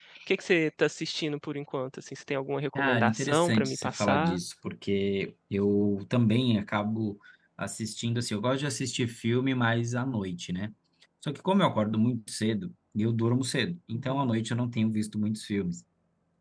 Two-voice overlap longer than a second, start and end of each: 2.8-4.4

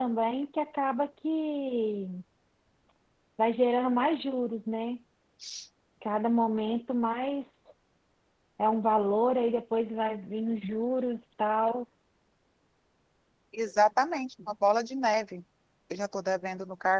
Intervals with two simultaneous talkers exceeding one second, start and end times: none

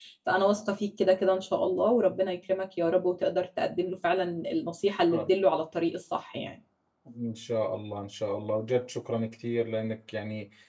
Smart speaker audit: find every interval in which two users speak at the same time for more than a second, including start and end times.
none

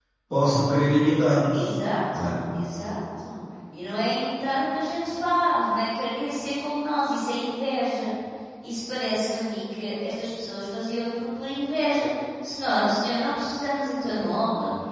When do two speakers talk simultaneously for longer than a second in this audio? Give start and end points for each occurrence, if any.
none

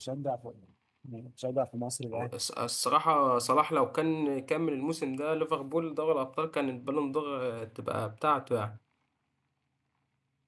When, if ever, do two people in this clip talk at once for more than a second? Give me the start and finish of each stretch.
none

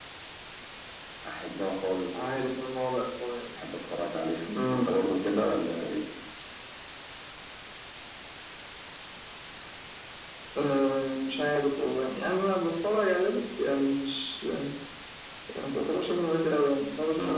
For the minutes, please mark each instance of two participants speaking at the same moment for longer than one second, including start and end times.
none

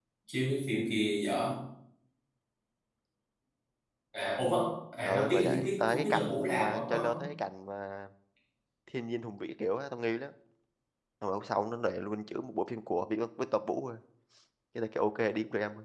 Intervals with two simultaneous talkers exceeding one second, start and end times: 5.0-7.2

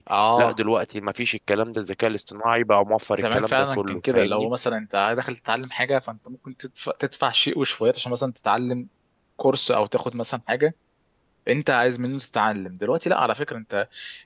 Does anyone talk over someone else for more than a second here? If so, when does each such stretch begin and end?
3.2-4.5

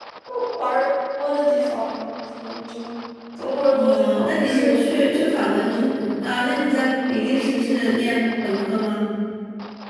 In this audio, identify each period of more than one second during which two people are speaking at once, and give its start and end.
3.7-5.3

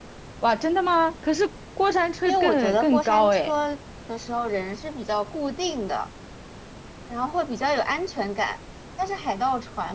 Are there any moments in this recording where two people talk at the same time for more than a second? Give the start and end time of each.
2.2-3.5

